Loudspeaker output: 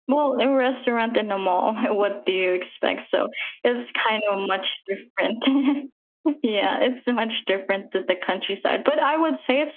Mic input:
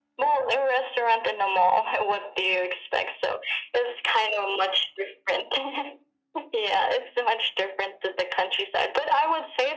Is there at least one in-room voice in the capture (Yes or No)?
No